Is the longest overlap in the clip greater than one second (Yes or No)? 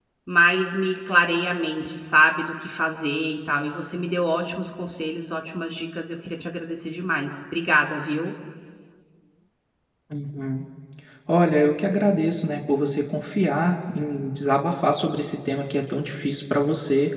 No